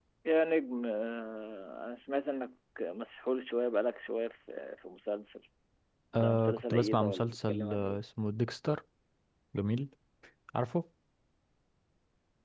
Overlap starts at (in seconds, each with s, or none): 6.2 s